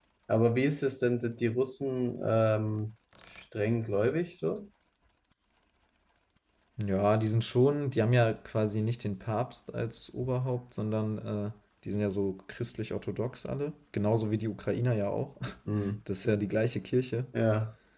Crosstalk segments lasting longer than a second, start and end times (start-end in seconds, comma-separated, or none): none